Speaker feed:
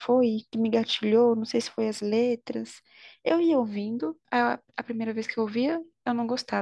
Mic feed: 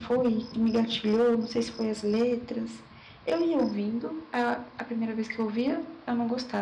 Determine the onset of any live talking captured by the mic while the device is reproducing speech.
none

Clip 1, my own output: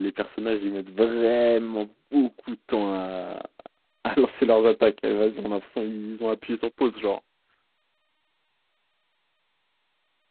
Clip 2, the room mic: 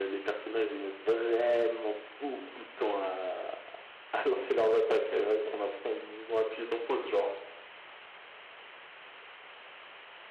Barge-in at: none

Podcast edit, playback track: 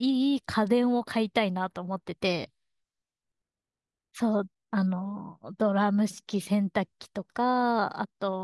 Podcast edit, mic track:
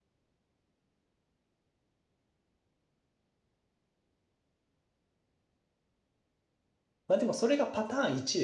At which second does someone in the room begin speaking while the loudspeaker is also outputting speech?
7.1 s

